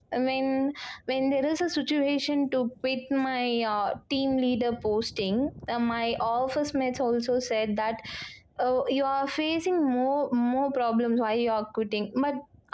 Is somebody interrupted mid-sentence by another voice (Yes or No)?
No